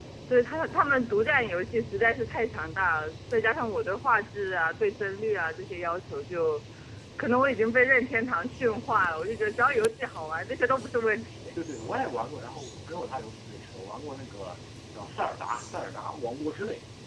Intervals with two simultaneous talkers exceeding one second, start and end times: none

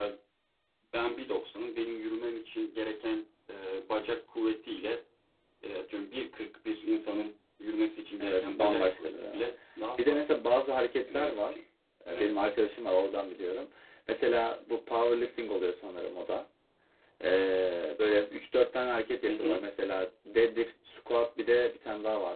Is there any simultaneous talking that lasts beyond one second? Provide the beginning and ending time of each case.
8.2-9.4

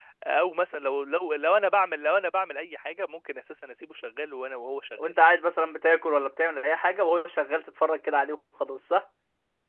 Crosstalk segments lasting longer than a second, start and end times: none

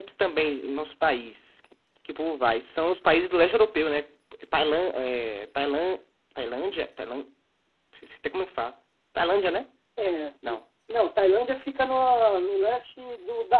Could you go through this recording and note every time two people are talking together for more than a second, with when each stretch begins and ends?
none

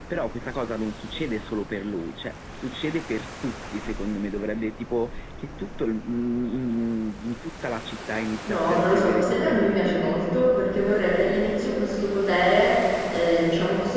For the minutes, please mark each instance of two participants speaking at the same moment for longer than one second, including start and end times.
8.5-10.1

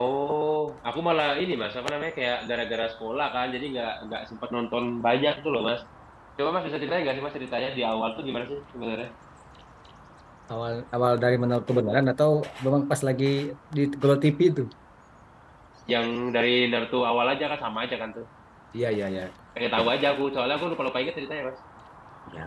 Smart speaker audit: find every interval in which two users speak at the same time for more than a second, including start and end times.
none

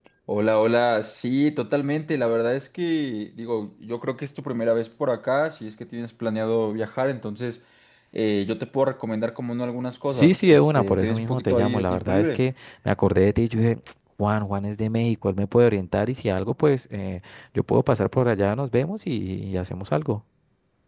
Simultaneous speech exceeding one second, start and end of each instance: 10.1-12.4

